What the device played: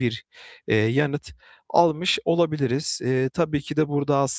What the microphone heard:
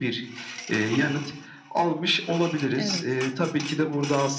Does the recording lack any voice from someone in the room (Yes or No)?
No